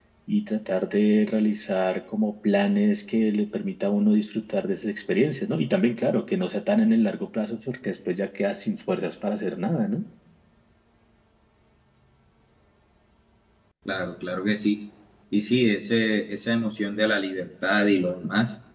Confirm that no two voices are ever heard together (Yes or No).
Yes